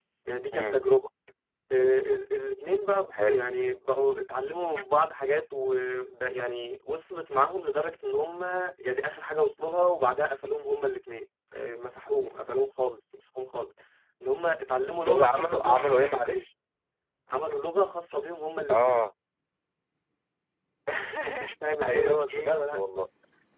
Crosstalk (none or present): present